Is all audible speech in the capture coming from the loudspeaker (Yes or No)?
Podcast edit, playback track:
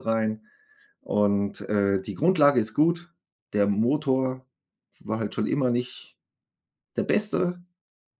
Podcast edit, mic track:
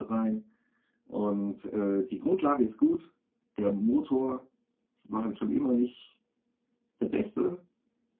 Yes